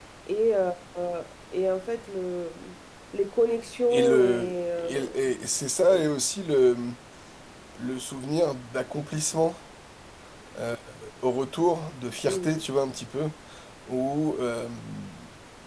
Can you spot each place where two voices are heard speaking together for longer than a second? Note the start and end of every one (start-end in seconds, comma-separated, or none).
3.9-5.2